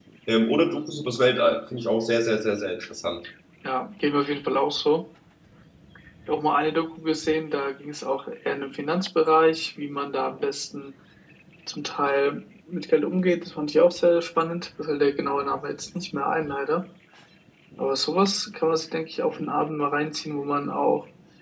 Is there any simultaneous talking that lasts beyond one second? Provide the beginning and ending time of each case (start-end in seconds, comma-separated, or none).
none